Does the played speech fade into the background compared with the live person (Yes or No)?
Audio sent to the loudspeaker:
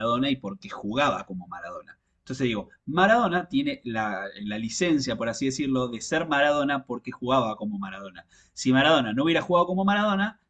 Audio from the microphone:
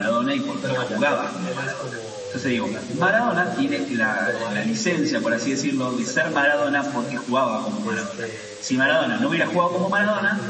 No